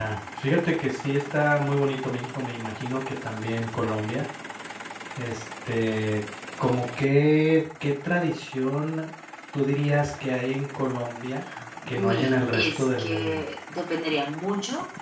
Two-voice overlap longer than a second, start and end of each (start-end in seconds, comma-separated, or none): 11.9-13.4